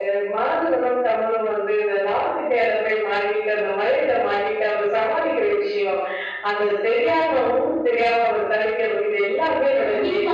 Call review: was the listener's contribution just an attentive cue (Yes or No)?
No